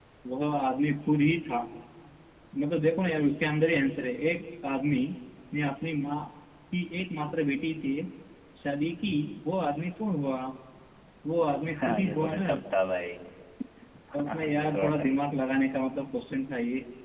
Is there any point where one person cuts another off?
Yes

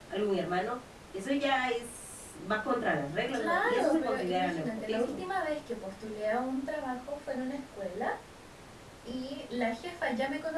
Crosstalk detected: Yes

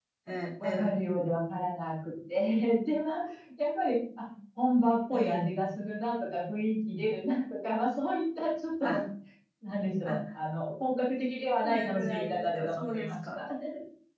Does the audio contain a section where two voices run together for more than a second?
Yes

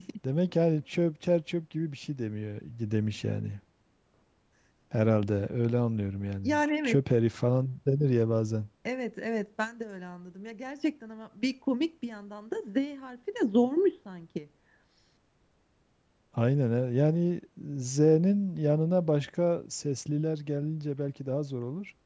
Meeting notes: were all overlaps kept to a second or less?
Yes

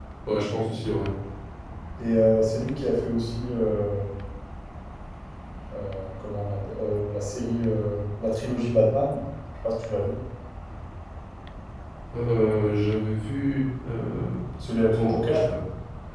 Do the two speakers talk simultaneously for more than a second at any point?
No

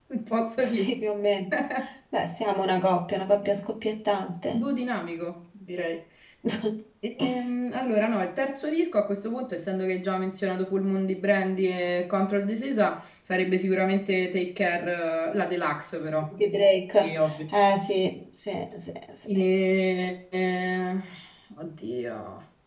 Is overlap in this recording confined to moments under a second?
Yes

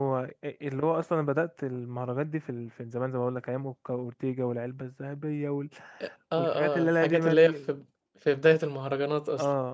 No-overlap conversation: No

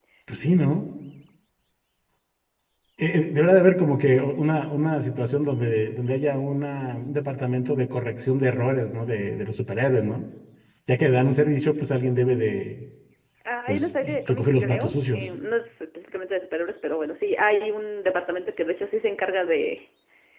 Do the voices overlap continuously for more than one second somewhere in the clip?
Yes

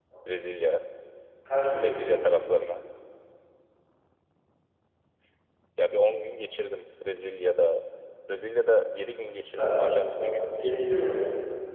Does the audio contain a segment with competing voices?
Yes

